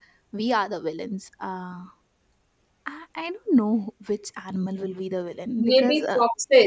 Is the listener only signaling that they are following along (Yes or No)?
No